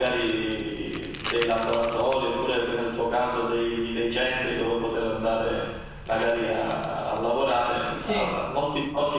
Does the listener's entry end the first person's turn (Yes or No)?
No